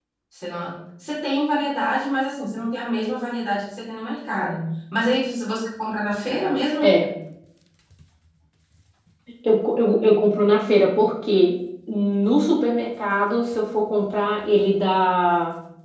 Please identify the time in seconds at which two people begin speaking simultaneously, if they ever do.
none

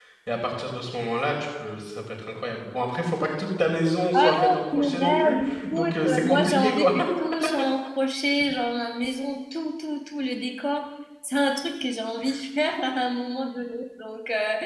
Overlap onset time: 4.1 s

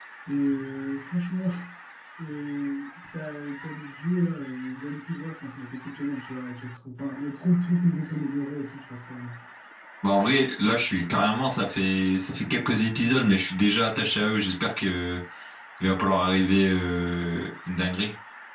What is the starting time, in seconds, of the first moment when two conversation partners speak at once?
none

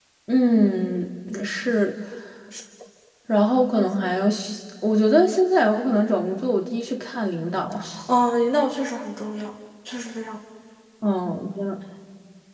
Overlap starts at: none

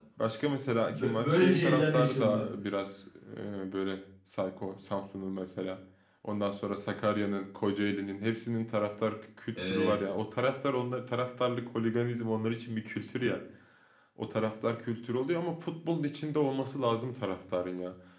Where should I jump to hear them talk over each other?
1.0 s

